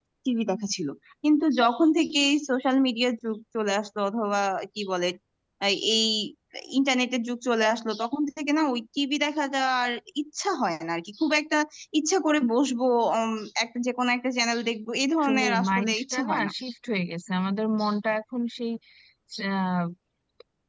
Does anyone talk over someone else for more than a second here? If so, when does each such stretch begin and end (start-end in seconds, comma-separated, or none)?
15.2-16.5